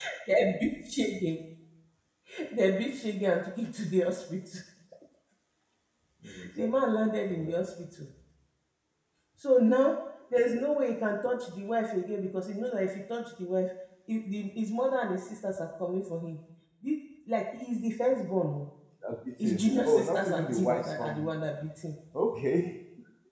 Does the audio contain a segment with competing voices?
Yes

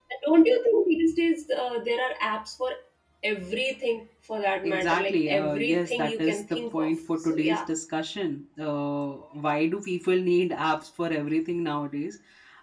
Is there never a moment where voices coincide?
No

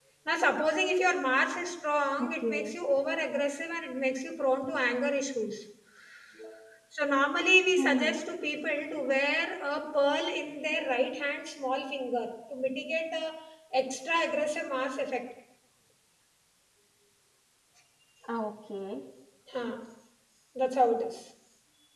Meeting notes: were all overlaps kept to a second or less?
Yes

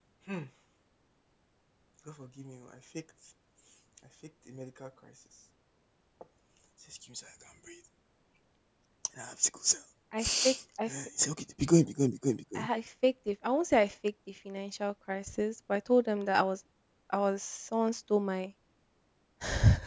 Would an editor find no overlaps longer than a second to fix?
Yes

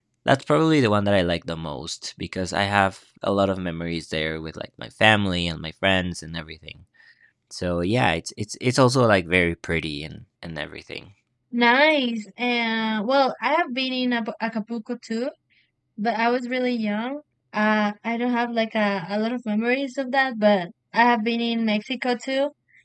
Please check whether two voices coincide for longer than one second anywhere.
No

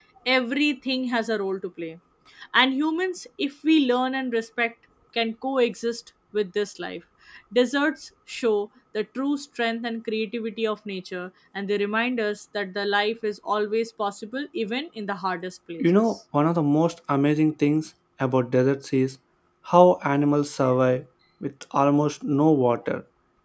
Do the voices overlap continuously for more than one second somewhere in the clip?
No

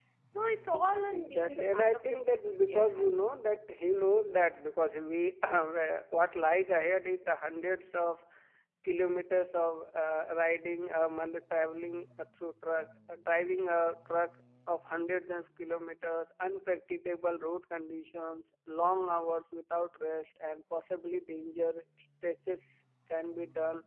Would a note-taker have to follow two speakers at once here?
Yes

